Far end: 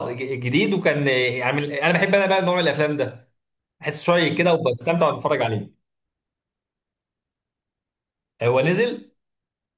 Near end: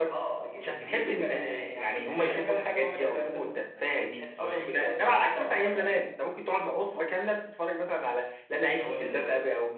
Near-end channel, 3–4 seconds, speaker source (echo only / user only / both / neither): both